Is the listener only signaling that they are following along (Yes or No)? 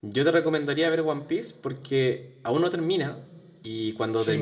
Yes